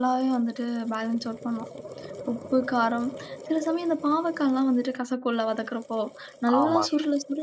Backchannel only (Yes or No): Yes